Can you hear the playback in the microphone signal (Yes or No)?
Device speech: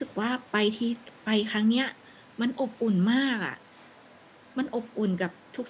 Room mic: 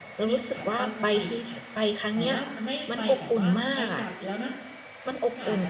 Yes